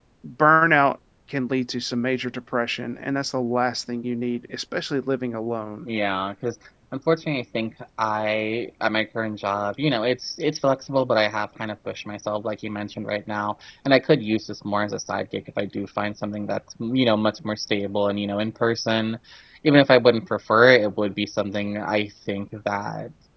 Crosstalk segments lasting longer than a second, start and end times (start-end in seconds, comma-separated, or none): none